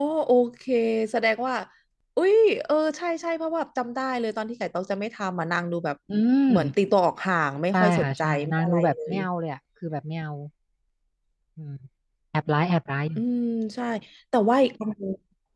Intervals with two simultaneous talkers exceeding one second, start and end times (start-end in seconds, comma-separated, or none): 7.7-9.2